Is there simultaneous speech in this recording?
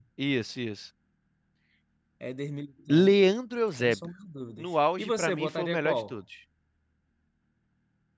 Yes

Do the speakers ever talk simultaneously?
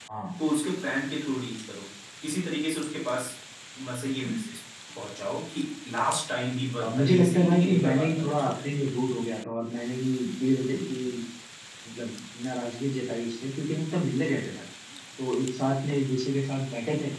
Yes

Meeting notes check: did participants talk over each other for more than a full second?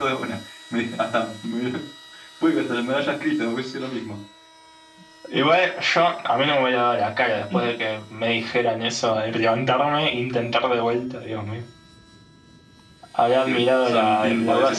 Yes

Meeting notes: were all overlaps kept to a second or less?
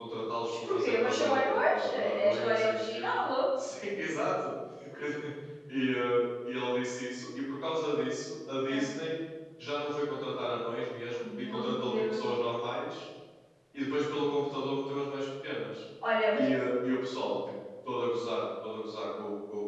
No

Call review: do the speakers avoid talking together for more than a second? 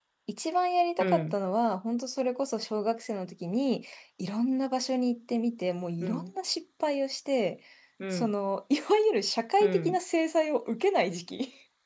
Yes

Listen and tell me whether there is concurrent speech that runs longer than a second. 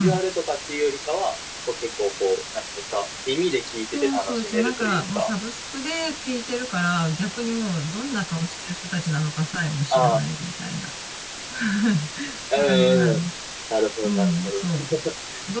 Yes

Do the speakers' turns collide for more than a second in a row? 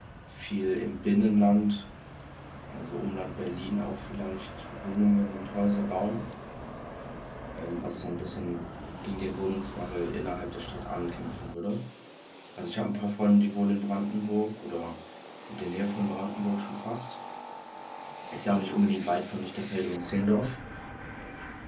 No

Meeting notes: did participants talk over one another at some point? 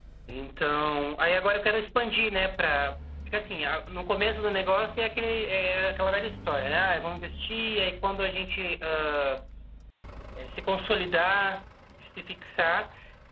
No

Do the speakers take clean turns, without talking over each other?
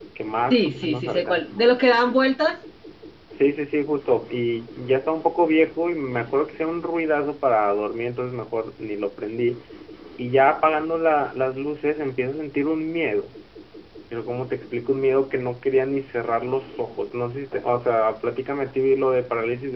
No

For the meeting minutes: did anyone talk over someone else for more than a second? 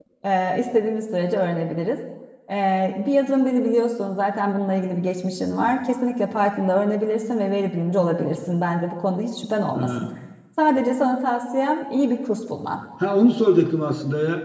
No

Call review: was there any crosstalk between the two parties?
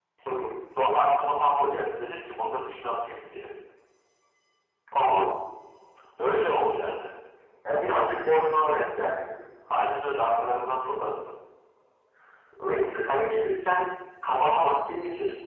No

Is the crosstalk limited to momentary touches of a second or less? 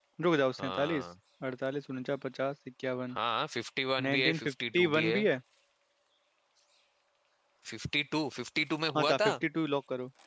No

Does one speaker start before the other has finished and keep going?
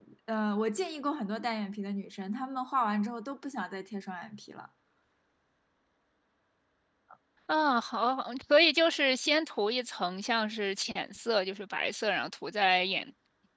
No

